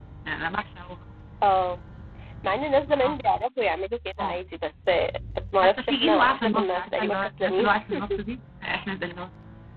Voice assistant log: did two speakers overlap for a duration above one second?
Yes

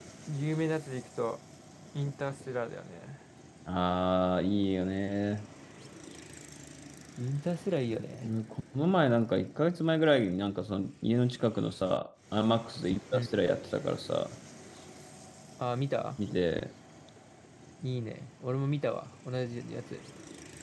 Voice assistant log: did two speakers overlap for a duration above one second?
No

